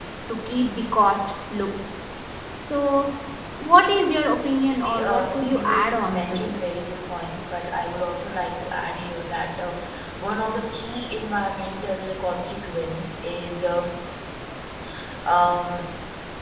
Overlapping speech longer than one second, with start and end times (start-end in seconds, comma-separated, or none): 4.8-6.7